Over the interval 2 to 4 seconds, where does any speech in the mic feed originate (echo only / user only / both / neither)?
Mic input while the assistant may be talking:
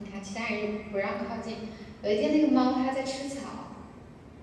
user only